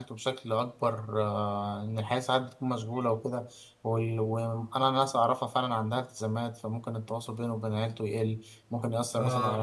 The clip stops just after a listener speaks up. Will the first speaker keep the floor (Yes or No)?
Yes